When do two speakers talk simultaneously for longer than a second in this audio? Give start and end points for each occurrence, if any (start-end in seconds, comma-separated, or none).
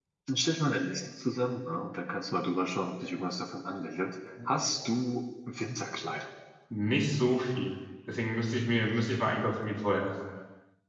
none